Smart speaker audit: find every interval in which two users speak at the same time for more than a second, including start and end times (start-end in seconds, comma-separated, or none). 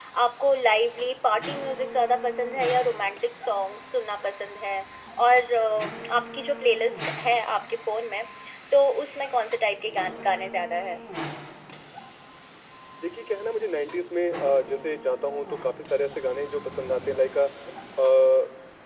none